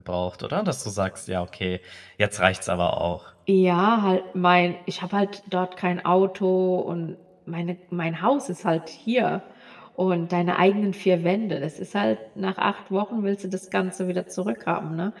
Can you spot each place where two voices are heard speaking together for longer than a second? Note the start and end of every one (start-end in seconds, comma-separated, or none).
none